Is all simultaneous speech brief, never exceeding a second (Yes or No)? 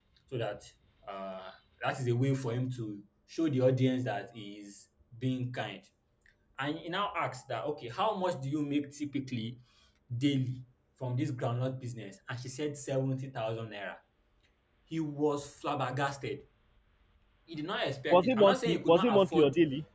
No